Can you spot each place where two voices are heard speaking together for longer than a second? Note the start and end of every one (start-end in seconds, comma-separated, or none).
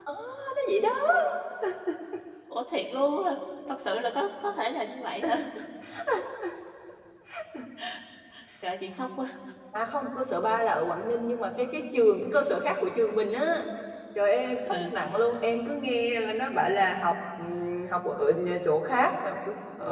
none